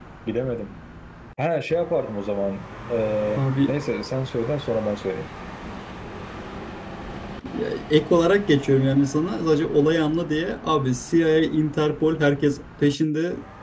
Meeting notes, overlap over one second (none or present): none